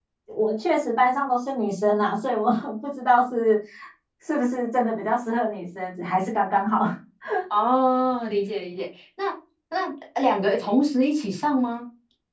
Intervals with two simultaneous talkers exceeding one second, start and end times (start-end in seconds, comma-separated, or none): none